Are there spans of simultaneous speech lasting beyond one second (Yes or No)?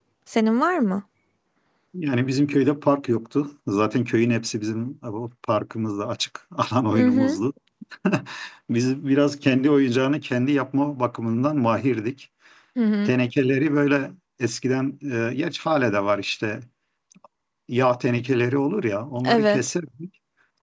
No